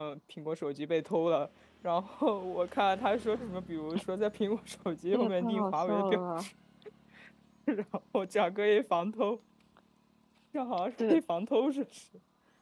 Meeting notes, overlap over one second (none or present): present